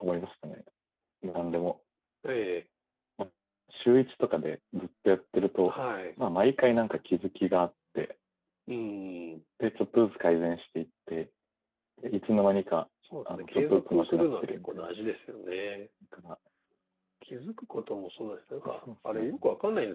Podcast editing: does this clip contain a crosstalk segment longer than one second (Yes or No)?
Yes